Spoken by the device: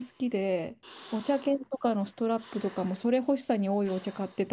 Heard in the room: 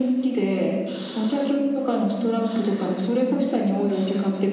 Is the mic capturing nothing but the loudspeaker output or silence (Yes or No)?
Yes